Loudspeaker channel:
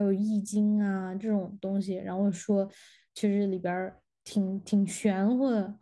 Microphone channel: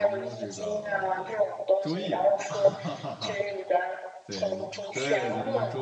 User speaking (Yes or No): Yes